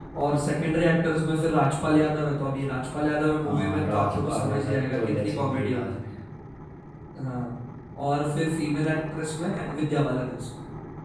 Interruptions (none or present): present